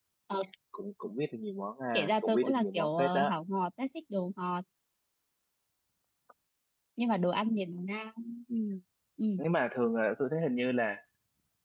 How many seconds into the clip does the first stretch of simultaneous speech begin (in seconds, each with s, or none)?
1.9 s